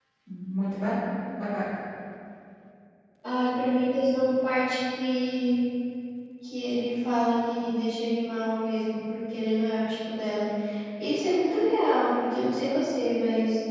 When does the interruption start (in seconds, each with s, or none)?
none